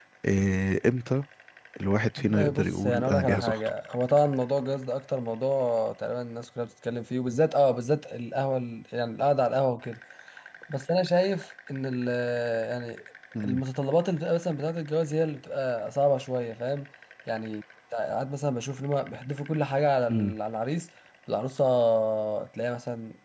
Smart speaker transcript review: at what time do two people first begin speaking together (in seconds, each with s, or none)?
2.2 s